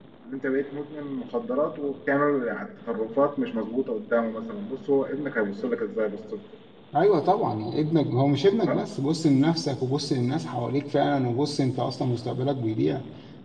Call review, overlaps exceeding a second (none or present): none